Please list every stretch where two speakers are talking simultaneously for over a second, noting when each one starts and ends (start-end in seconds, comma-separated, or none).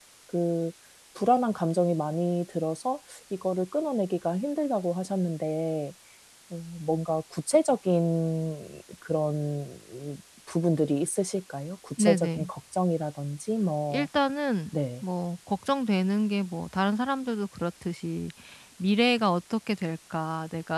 none